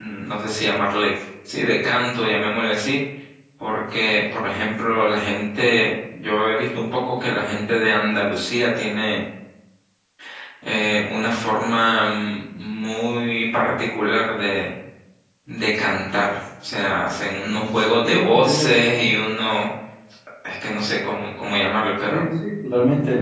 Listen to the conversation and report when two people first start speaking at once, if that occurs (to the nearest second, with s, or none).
17 s